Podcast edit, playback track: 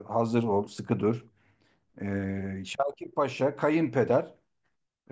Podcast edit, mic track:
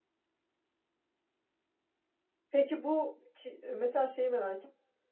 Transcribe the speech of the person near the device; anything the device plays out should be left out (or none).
Peki bu ki- mesela şeyi merak